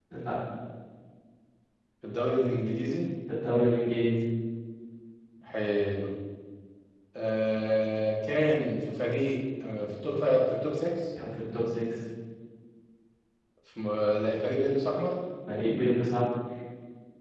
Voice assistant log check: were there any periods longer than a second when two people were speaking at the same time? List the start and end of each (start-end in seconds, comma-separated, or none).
none